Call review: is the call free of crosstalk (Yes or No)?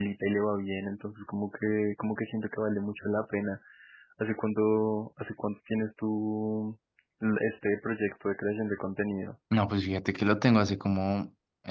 Yes